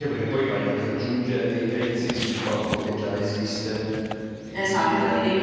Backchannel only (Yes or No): No